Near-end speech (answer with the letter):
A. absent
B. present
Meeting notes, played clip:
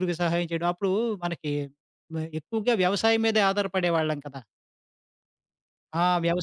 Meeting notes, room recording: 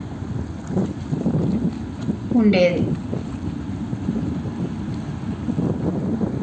B